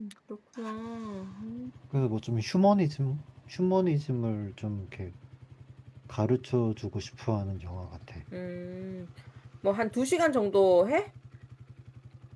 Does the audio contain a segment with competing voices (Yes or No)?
No